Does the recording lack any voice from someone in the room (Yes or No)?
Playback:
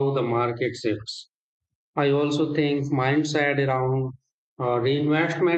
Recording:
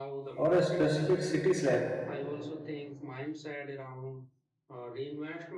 No